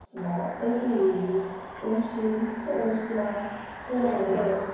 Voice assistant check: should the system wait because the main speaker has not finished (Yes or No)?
Yes